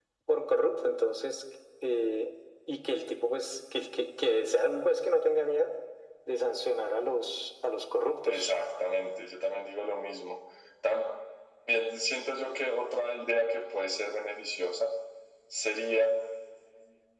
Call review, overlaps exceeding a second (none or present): none